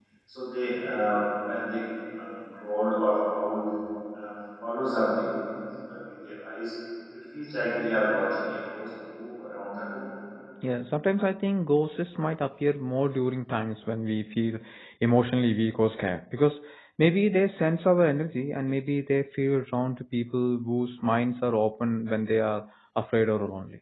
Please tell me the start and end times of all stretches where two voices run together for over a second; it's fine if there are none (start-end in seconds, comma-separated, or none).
none